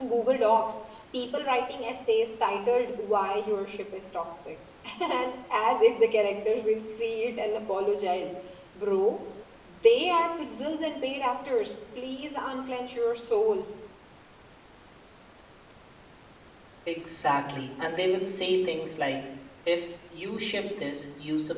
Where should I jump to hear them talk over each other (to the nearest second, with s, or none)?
none